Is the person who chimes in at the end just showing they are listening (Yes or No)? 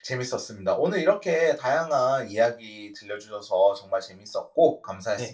No